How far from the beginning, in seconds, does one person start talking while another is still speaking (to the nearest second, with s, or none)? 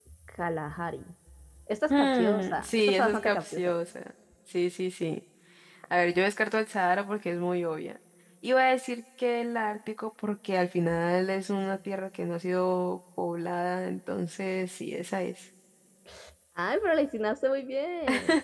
2 s